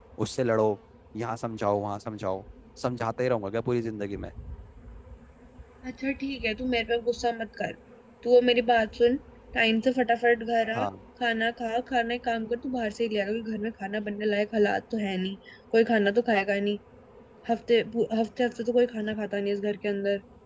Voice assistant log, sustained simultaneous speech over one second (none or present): none